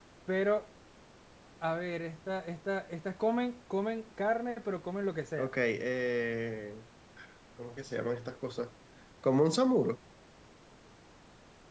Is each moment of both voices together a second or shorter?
Yes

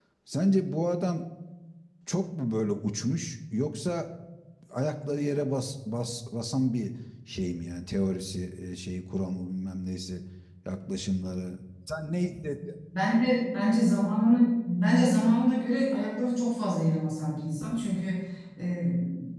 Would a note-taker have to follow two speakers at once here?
No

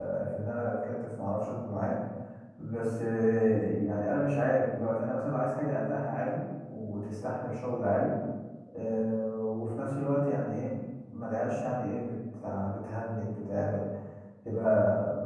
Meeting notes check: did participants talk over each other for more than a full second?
No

